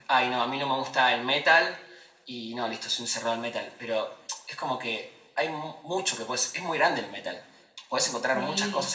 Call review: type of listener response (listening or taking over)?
listening